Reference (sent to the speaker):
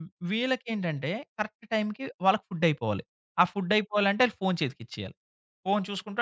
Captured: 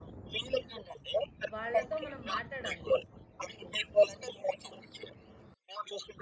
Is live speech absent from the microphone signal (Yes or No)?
No